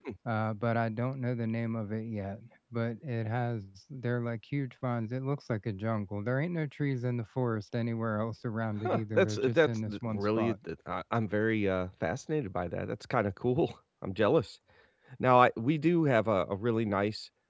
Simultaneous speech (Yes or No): Yes